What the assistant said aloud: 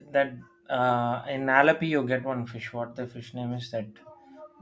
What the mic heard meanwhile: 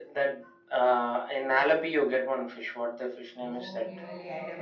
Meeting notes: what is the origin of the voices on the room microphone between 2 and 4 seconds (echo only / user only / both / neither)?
both